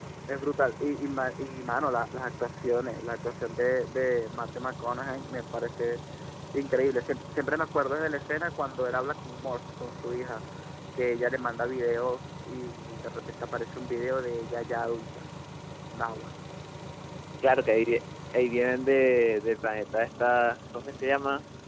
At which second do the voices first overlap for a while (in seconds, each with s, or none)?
none